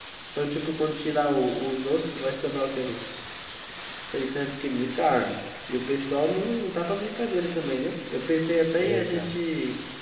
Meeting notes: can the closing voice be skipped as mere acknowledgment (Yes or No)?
Yes